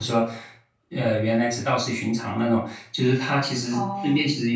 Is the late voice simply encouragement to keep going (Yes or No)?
Yes